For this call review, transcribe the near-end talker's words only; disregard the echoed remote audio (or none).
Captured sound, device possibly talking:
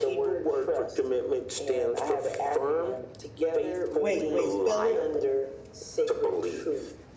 Wait, wait. Spell it.